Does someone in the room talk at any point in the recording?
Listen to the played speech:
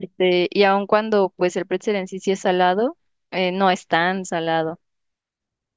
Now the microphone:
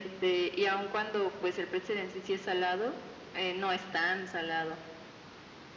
No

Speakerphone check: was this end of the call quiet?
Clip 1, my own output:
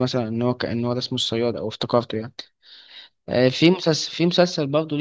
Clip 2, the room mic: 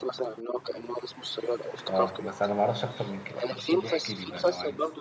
No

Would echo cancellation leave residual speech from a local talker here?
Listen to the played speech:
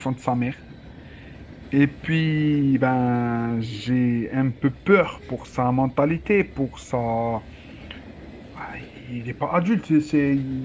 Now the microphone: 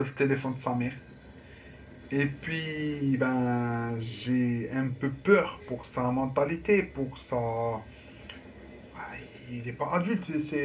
No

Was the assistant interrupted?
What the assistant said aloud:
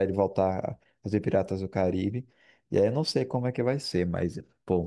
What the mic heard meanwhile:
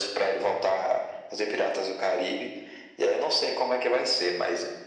No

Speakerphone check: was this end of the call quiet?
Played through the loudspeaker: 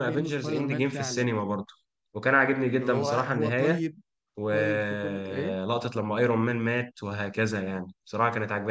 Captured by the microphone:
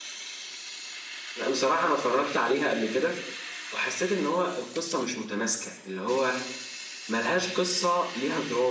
No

